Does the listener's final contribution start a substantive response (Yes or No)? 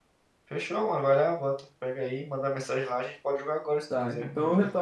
Yes